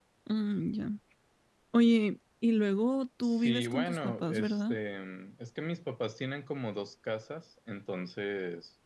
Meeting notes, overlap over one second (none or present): present